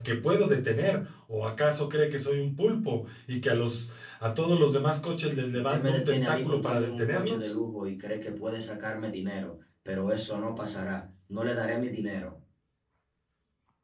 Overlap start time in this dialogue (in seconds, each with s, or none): 5.5 s